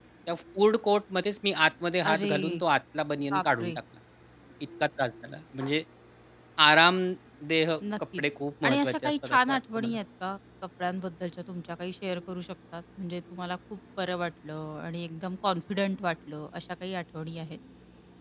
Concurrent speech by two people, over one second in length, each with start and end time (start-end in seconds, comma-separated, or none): 8.6-10.0